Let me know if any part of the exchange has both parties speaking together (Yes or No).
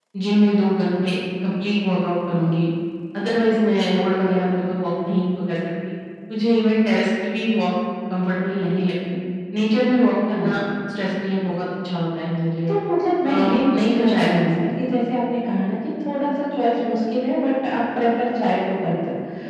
Yes